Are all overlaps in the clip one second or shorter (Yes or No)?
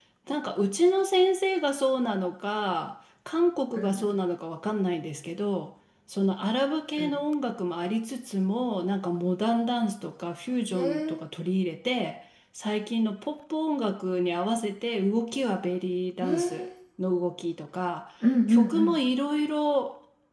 Yes